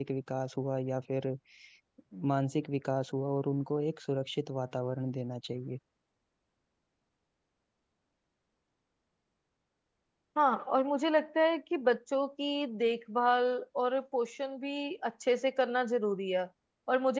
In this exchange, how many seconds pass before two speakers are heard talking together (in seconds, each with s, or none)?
none